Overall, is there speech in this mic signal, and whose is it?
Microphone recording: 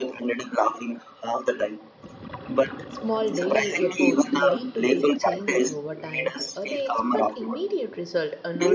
both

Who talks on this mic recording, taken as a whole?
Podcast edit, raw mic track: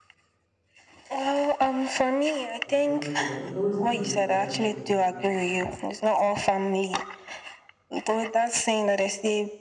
both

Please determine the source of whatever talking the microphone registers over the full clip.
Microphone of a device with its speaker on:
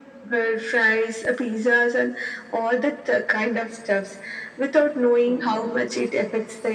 echo only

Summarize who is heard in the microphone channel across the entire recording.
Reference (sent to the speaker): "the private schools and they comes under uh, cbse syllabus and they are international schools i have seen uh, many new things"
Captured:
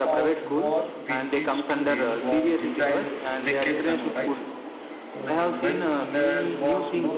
both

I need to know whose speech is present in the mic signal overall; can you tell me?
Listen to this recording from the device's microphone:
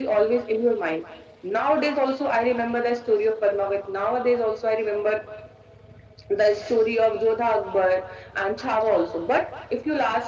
echo only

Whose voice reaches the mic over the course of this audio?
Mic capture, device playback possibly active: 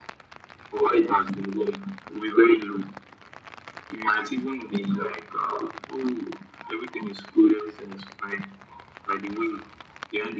echo only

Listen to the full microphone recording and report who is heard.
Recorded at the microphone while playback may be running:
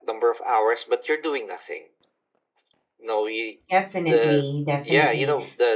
both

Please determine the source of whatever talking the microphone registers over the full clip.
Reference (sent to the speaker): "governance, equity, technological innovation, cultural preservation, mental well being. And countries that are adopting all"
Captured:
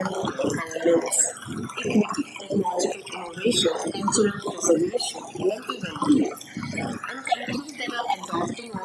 echo only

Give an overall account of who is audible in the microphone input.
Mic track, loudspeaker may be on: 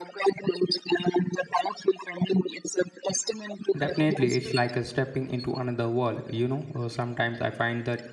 both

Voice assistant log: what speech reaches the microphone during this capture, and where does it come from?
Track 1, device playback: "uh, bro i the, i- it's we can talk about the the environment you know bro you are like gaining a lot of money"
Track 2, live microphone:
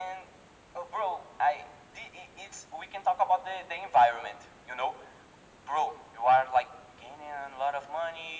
echo only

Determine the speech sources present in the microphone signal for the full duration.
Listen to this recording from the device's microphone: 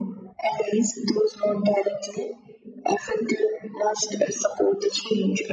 echo only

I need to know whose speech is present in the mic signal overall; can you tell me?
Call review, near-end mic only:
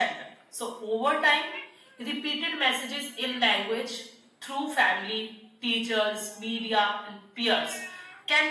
echo only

